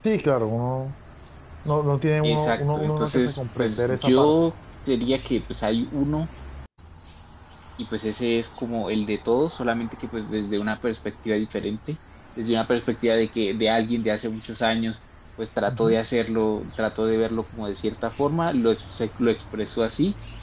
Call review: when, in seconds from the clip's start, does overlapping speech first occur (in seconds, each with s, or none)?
2.2 s